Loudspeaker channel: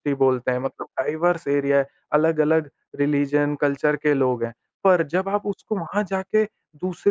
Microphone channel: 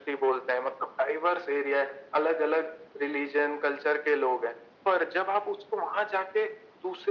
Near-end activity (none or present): none